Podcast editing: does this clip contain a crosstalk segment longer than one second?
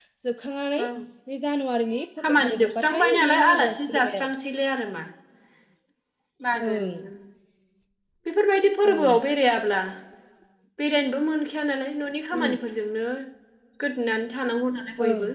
Yes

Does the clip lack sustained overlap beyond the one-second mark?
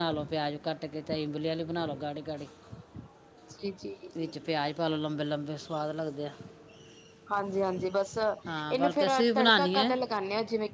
No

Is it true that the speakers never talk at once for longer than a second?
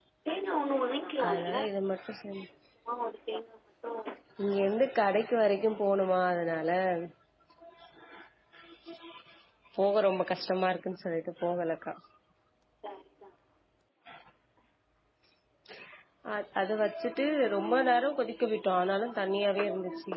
Yes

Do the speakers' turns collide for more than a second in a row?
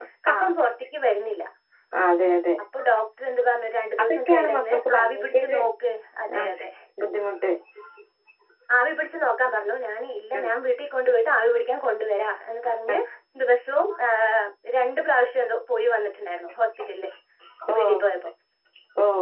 Yes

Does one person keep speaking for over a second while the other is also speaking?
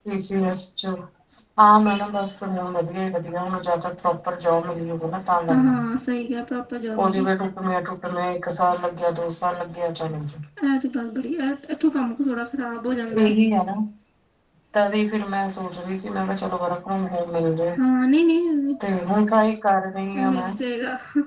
No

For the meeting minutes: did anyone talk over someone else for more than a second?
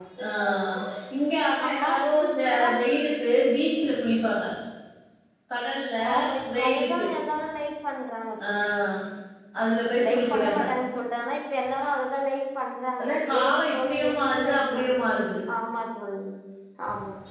Yes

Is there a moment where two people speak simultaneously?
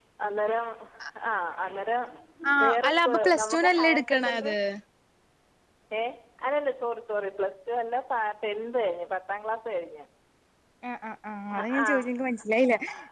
Yes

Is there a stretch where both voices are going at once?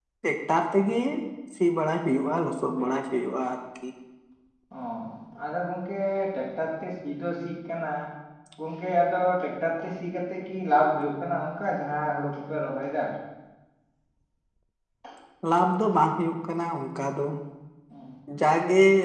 No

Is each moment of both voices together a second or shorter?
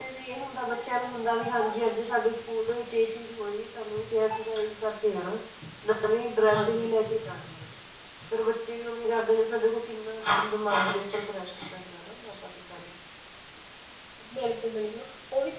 Yes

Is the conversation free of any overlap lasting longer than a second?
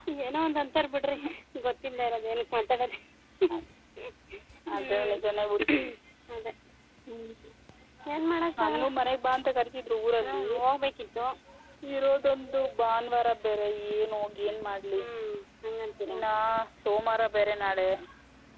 Yes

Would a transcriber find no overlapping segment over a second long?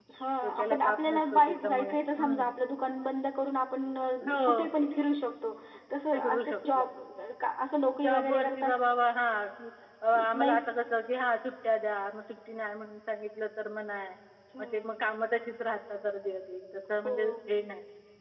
No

